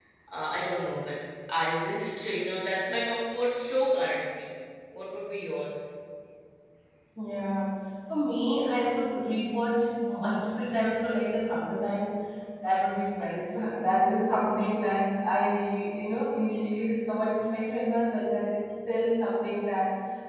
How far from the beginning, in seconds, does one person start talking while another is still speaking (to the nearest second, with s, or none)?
none